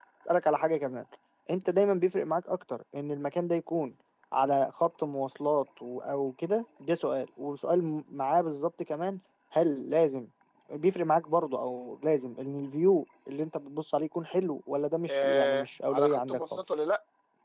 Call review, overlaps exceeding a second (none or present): present